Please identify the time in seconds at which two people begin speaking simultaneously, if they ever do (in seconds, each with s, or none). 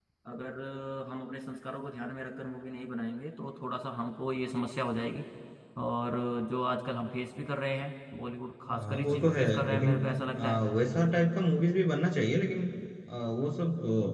8.7 s